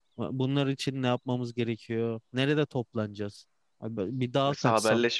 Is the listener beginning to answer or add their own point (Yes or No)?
Yes